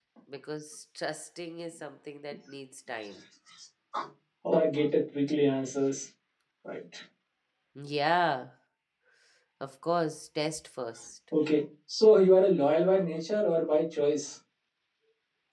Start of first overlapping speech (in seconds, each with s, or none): none